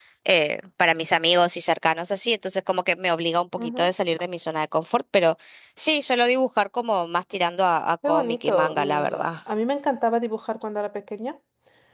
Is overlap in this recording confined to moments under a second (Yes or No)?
No